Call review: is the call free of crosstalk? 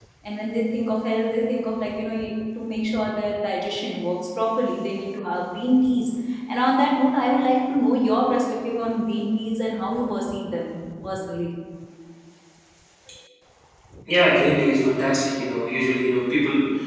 Yes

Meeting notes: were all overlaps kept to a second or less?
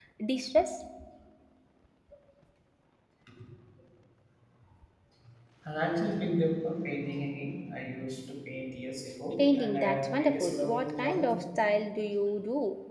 No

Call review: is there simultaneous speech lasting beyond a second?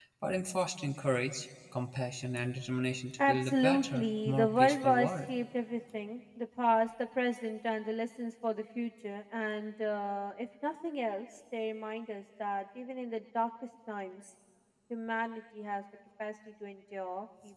Yes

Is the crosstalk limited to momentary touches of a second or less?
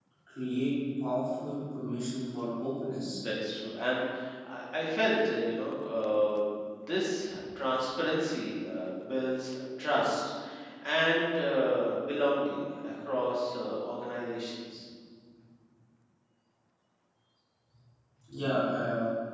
Yes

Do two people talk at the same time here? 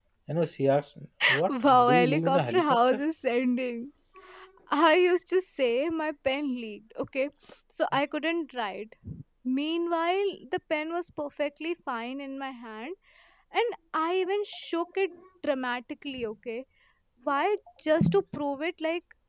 Yes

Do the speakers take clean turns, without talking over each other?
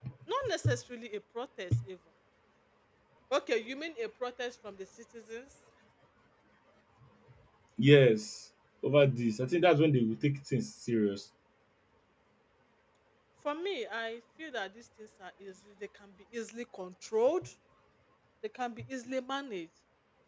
Yes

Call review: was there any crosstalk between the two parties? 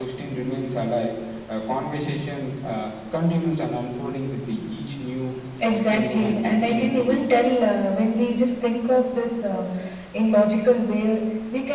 Yes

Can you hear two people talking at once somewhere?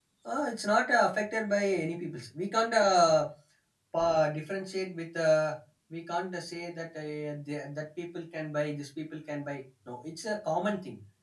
No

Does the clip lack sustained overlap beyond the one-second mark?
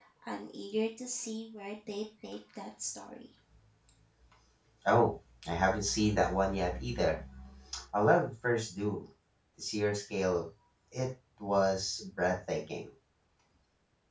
Yes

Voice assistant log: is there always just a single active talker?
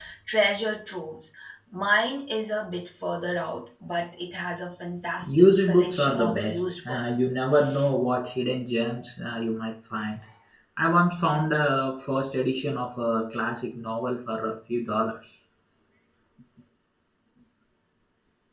No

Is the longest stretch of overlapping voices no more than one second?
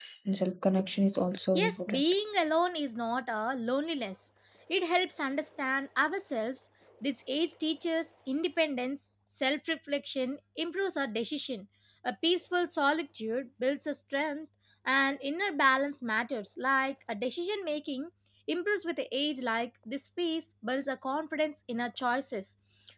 Yes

